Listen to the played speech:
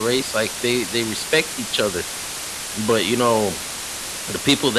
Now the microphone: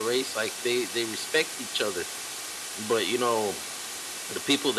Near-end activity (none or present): none